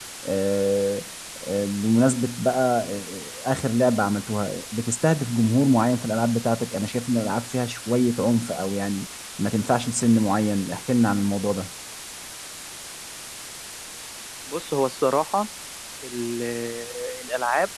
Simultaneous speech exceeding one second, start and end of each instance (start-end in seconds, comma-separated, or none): none